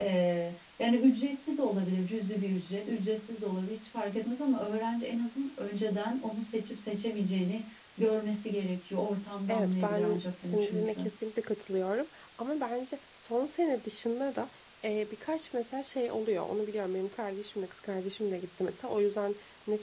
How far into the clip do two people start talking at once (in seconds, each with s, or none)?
9.5 s